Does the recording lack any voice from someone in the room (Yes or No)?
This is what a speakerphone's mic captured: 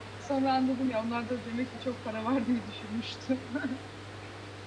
No